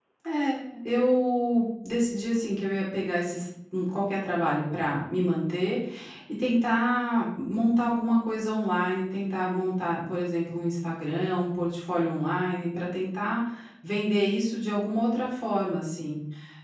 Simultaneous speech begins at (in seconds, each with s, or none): none